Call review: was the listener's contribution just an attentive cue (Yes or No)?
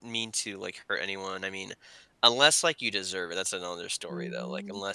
No